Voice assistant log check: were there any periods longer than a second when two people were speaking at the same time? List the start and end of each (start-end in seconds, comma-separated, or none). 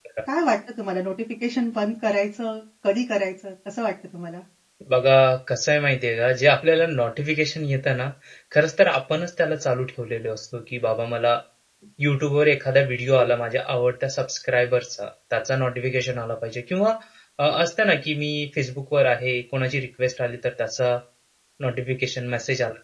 none